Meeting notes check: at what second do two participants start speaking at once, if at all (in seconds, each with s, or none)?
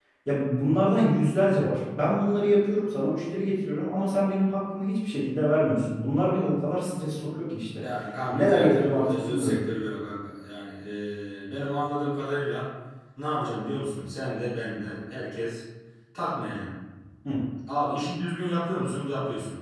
8.3 s